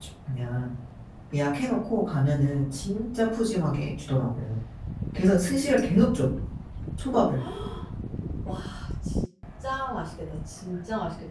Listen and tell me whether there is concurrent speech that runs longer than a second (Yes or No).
No